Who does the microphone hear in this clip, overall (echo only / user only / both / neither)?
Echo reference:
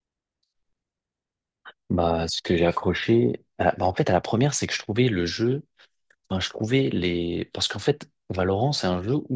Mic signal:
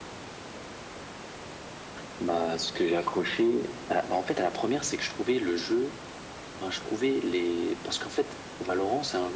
echo only